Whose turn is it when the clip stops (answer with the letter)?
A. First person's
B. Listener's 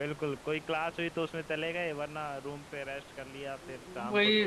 B